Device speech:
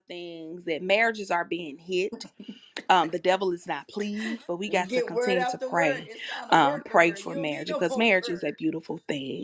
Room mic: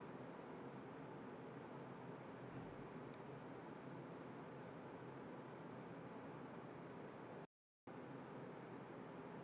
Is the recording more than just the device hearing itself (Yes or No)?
No